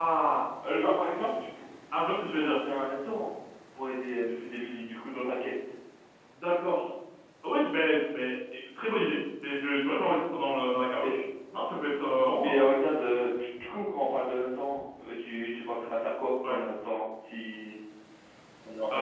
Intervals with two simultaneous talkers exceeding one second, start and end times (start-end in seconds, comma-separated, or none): none